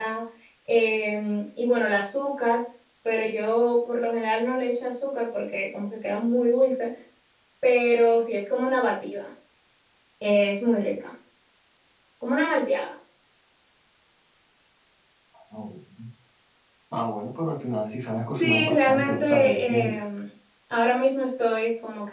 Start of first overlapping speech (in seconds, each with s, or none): 18.4 s